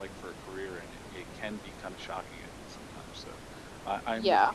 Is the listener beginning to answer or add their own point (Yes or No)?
No